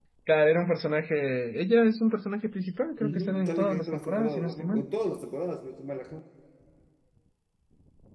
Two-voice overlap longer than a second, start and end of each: 3.0-4.8

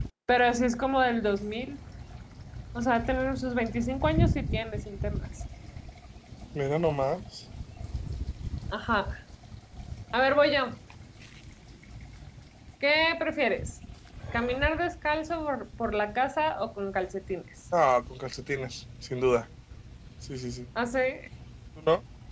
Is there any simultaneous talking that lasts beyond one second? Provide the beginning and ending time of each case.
none

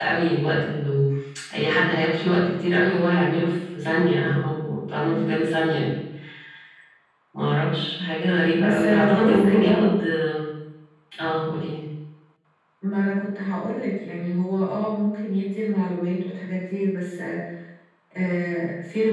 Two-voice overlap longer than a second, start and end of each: 8.5-9.9

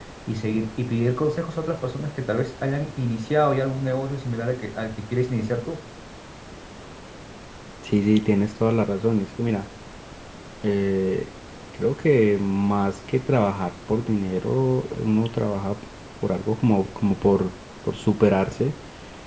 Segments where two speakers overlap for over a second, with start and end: none

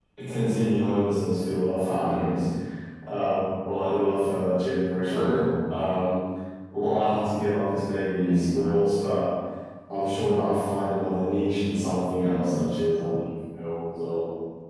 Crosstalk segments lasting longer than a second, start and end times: none

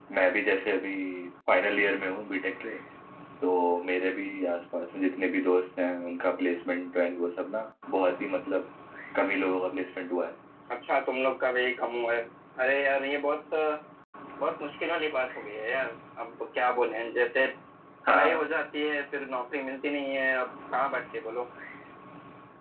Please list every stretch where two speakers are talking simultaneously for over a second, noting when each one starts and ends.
none

